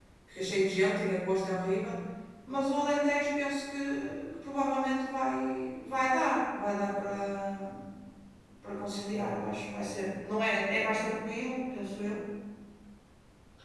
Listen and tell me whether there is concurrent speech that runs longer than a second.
No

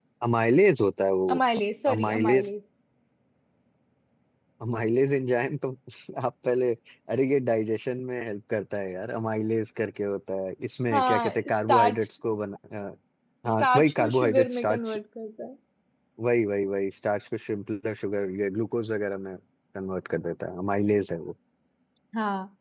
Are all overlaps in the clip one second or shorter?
No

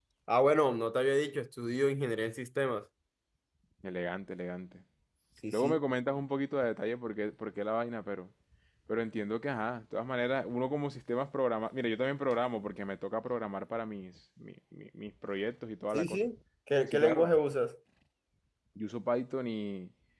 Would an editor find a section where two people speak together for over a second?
No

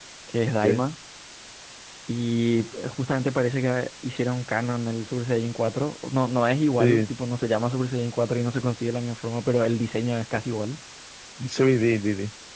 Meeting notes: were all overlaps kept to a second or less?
Yes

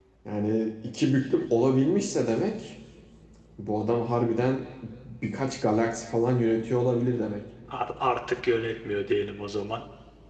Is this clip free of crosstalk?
Yes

